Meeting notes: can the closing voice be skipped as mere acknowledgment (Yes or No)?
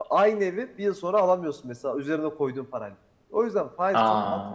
Yes